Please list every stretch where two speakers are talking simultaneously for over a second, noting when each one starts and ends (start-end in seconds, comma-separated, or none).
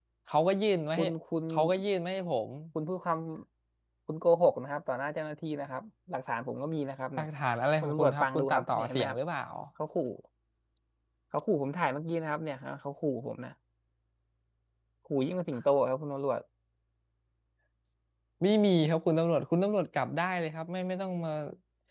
7.8-9.2